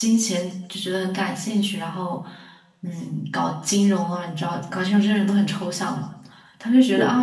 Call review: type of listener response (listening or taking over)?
listening